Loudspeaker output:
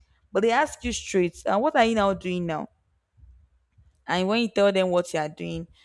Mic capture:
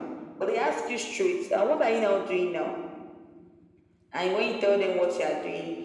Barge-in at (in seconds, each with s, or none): none